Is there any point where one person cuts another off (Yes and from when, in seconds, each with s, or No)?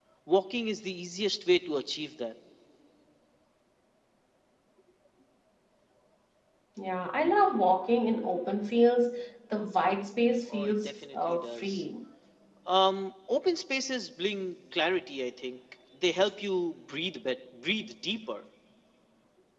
Yes, from 10.5 s